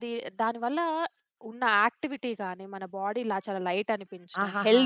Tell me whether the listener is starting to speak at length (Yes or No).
No